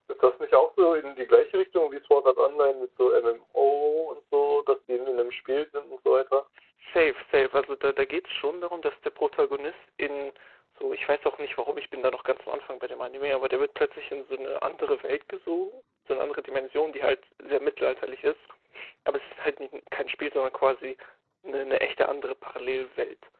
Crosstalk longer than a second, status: none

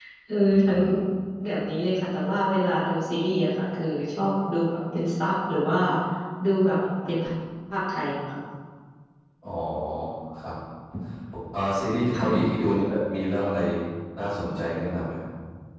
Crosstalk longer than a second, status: none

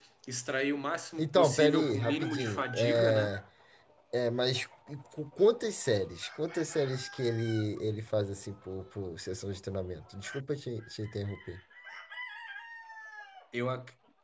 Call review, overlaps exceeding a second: present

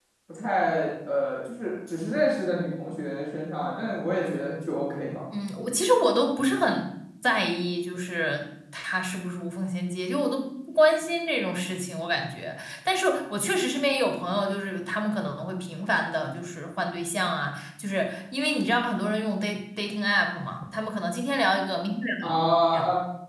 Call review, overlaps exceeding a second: none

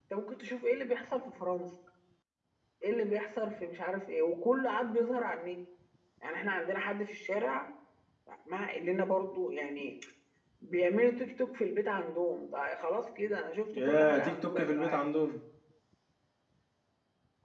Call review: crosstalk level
present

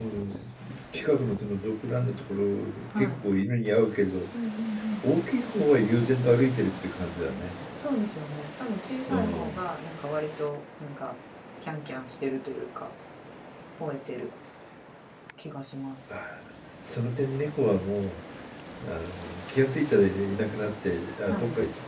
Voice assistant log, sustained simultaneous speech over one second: none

